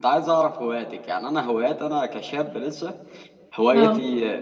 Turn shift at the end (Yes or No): No